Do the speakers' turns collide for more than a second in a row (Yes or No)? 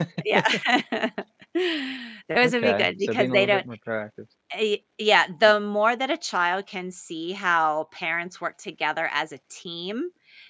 Yes